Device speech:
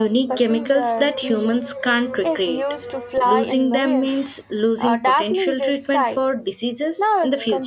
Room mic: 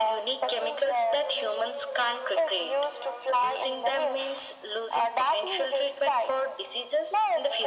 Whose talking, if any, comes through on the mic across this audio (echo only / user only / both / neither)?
echo only